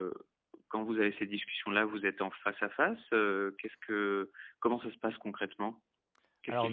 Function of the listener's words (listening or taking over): taking over